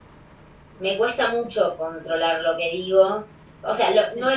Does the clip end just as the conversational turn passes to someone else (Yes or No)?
No